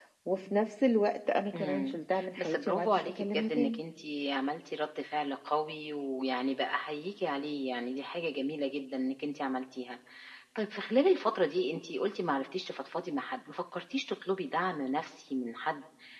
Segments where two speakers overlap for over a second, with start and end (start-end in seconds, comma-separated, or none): 2.4-3.8